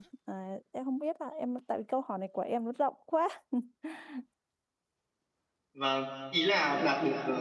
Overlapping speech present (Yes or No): No